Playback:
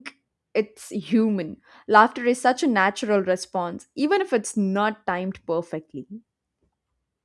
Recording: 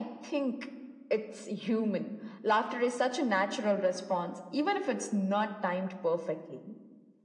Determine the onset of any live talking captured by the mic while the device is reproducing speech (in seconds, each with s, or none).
none